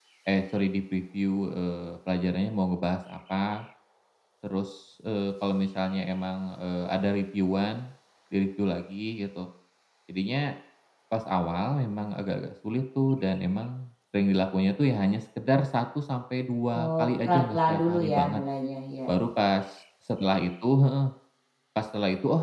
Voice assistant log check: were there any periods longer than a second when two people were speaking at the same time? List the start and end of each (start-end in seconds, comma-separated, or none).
16.8-18.4